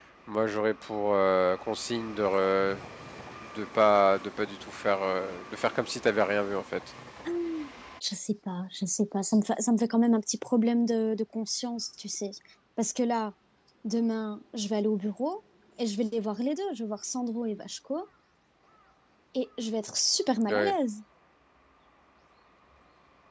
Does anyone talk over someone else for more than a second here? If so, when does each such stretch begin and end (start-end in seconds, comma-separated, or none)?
none